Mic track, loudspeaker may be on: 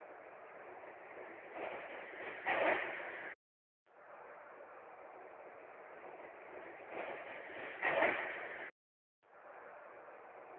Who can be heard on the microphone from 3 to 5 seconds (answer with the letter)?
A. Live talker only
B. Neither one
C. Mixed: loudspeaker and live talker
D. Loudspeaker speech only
B